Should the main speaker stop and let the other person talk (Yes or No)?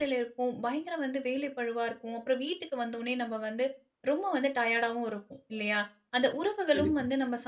No